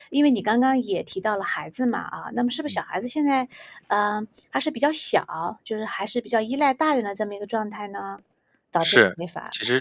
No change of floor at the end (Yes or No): No